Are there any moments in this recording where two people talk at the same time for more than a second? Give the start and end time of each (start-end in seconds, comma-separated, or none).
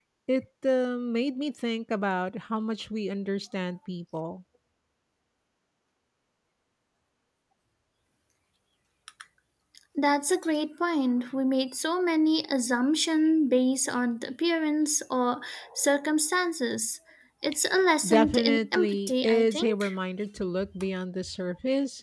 18.1-19.8